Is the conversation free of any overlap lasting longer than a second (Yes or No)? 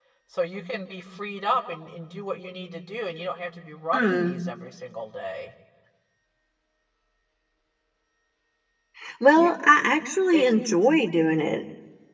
Yes